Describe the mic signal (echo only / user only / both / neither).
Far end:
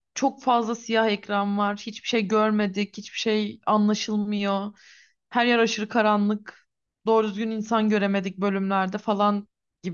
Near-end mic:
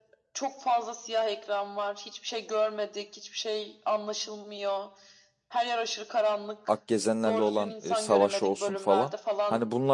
both